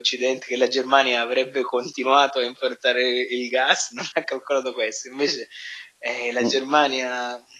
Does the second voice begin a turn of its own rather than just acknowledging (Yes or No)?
No